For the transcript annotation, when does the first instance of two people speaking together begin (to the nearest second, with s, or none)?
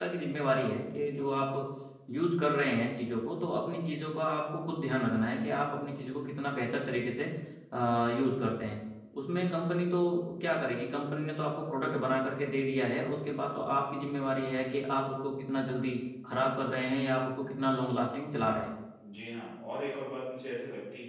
none